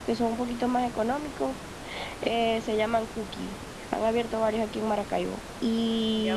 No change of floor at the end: No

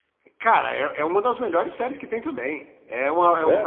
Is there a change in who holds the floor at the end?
No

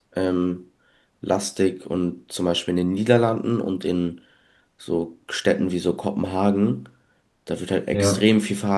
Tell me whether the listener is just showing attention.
Yes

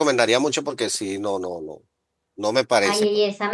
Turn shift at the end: Yes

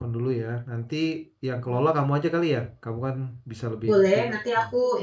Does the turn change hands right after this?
Yes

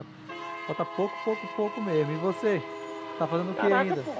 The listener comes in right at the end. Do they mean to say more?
Yes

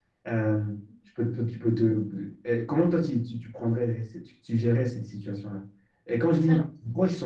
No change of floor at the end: Yes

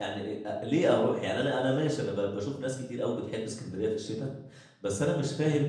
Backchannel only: Yes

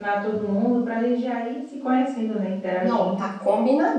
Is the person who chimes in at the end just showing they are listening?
No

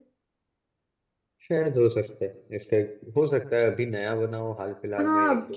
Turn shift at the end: Yes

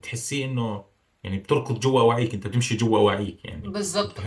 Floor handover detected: Yes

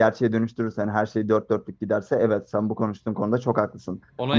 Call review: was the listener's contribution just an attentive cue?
No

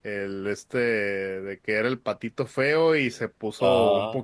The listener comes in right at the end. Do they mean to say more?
No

